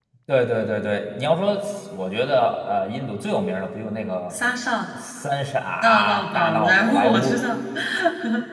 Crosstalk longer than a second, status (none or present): present